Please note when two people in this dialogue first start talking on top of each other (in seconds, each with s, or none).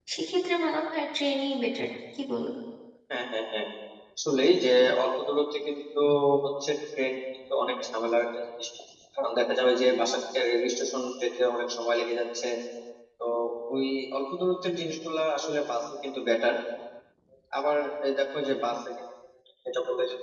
none